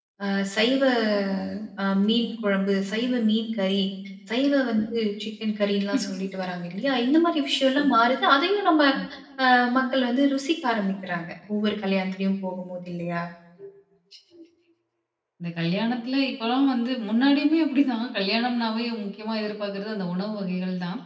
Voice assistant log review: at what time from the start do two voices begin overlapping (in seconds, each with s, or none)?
none